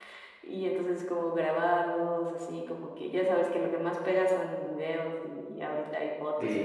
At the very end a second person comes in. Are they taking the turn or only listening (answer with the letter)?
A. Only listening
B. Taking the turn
A